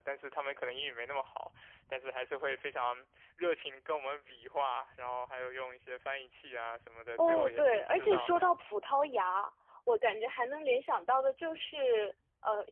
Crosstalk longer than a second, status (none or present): present